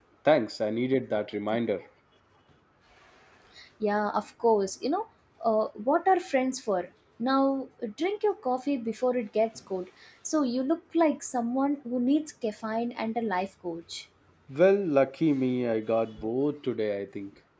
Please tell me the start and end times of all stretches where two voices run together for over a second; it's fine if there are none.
none

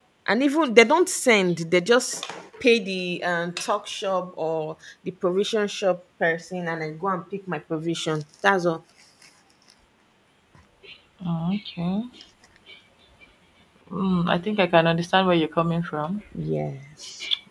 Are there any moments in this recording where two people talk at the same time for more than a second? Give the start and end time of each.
none

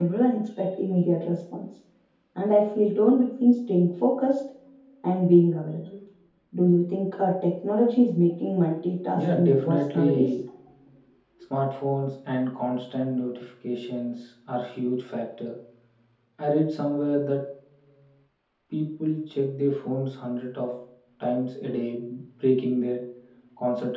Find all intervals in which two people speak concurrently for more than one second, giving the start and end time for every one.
9.2-10.4

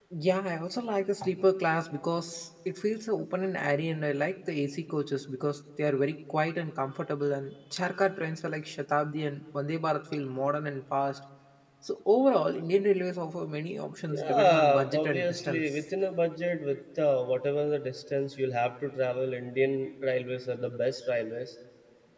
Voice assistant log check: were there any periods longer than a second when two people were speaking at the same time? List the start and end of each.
14.2-15.8

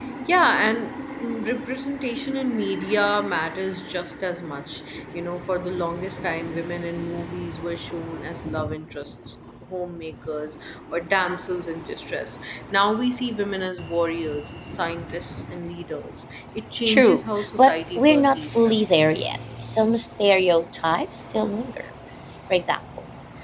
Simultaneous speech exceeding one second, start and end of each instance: 16.8-18.8

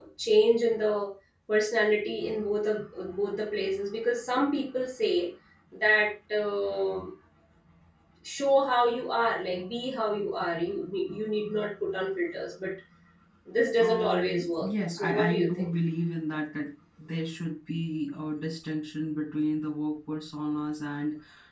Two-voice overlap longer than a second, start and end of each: 13.8-15.7

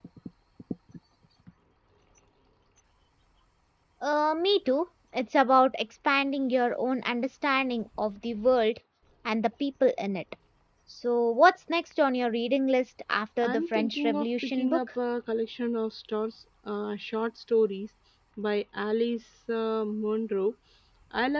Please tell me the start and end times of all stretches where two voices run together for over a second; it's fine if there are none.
13.4-14.8

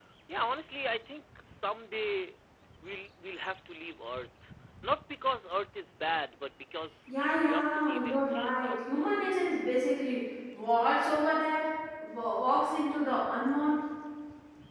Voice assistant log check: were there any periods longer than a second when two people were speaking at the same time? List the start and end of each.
7.1-9.1

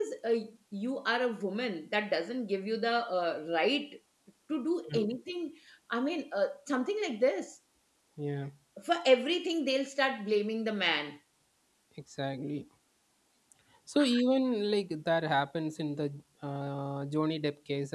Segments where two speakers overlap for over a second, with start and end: none

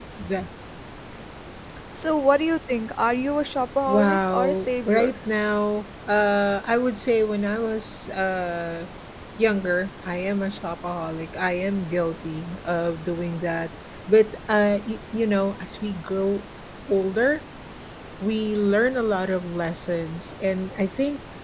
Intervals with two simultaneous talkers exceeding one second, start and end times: 3.9-5.1

